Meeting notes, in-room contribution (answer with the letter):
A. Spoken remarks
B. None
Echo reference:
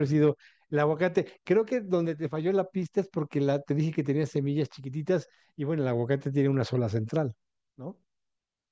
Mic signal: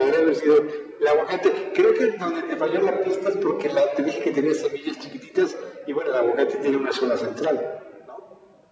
B